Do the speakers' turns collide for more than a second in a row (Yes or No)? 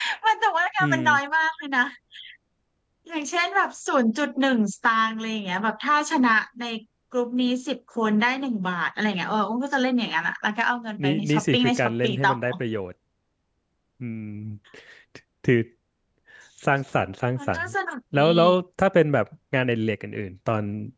Yes